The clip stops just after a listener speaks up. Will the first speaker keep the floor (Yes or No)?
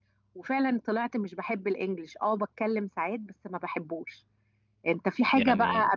Yes